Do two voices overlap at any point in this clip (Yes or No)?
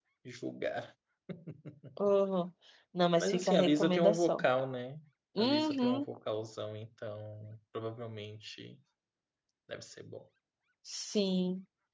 Yes